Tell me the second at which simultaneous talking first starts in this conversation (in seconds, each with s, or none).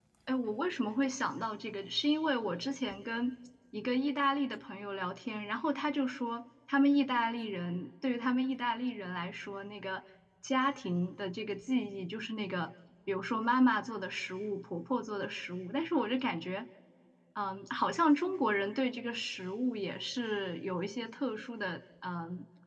none